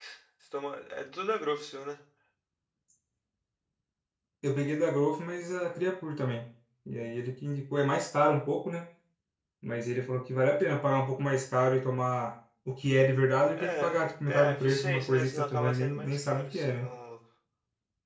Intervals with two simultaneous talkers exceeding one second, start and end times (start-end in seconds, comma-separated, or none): 14.3-16.9